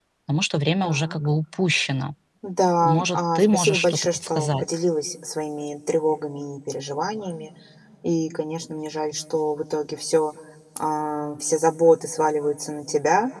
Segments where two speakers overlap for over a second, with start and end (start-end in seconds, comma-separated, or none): 2.8-4.6